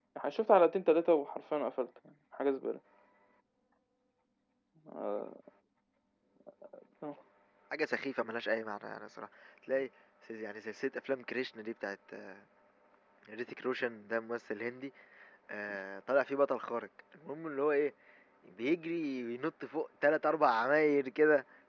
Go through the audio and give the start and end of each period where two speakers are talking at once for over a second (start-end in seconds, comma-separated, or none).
none